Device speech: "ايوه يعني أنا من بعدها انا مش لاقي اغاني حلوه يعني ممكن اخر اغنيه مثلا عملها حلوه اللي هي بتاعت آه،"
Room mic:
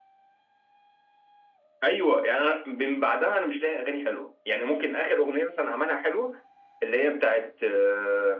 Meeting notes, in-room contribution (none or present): none